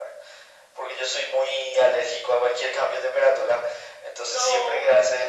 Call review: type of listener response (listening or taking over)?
listening